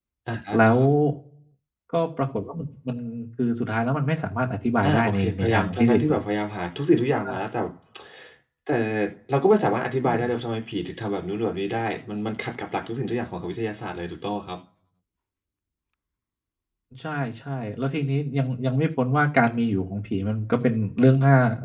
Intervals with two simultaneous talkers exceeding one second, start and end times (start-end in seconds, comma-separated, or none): 4.8-6.2